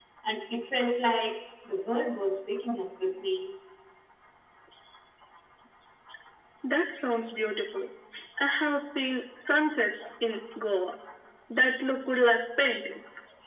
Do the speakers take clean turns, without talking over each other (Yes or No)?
Yes